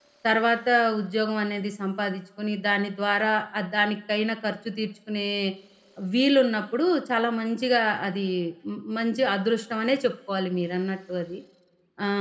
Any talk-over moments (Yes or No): No